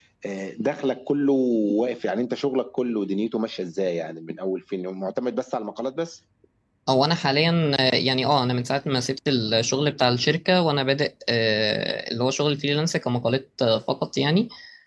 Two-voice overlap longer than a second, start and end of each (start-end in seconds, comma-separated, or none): none